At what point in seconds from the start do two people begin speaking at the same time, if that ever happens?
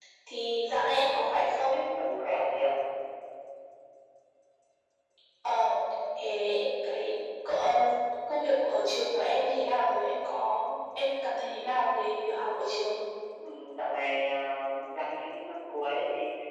none

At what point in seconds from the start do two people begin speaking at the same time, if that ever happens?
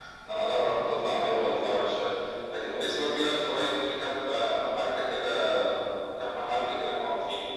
none

